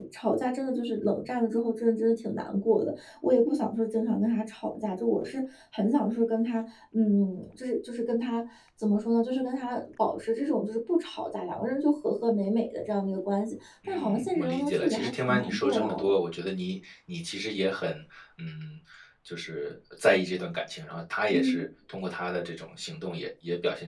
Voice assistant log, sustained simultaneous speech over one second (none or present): present